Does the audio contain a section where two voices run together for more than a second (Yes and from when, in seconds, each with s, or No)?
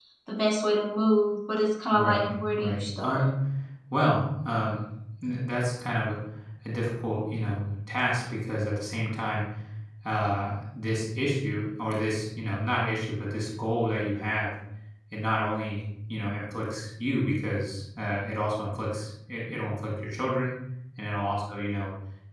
Yes, from 1.9 s